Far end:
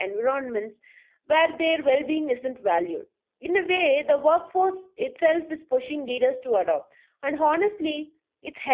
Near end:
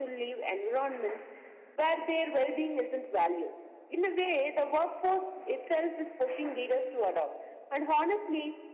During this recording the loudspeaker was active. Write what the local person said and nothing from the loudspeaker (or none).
none